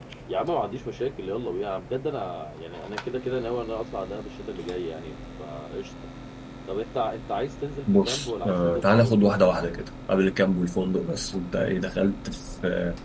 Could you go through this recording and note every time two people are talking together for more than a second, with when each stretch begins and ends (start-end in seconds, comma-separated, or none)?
7.9-9.2